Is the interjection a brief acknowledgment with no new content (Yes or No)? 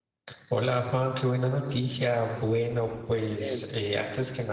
Yes